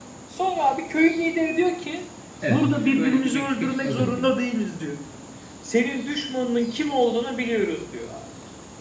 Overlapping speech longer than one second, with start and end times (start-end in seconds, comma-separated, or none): 2.5-4.3